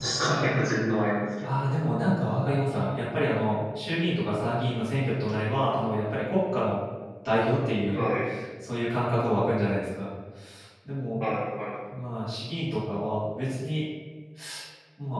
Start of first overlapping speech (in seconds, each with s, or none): none